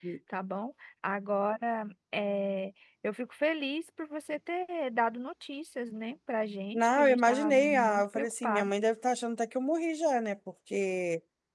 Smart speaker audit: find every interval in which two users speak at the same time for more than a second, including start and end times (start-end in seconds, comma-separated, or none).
6.7-8.7